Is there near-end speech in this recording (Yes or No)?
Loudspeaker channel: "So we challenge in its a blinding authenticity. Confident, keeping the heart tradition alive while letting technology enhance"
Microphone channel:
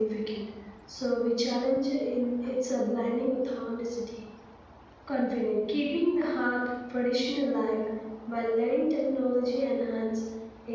No